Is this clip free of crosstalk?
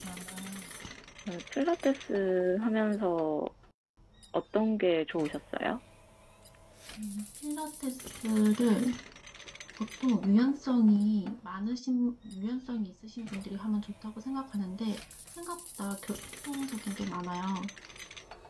Yes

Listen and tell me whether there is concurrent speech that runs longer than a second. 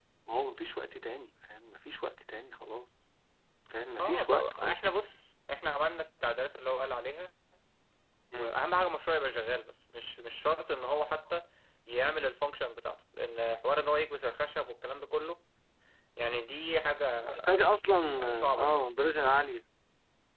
Yes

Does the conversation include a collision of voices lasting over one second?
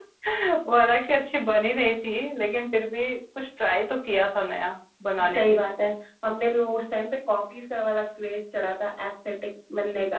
No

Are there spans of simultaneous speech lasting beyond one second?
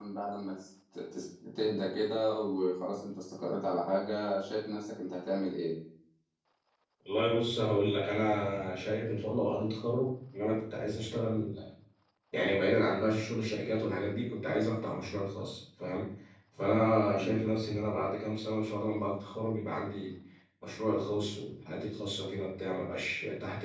No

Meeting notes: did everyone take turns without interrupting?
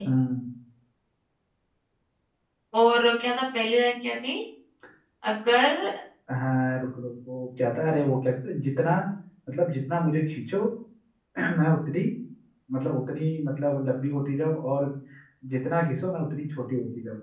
Yes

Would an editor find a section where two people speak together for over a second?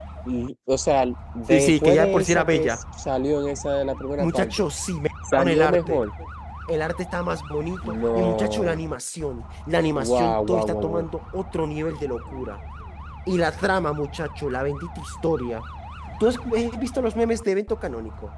Yes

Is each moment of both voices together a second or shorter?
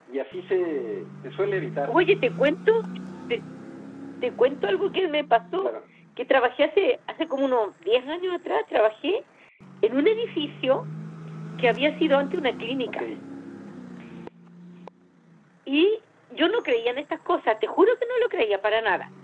Yes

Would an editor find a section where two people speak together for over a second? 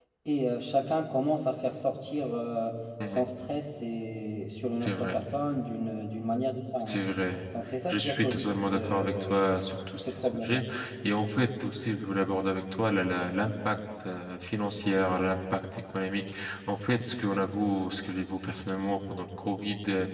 Yes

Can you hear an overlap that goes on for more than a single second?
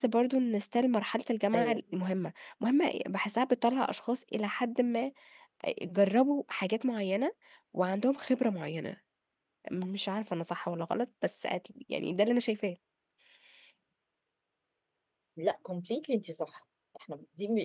No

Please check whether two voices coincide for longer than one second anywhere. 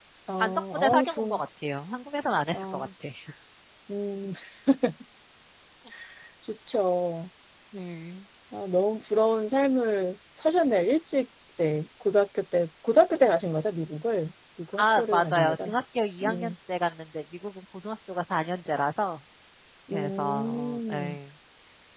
Yes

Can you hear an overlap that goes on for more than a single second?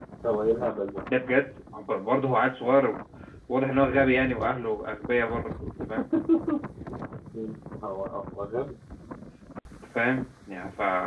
No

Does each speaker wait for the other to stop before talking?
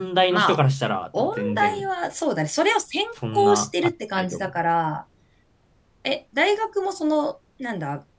No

